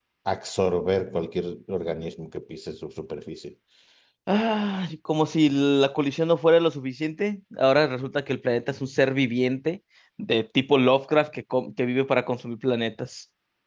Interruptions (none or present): none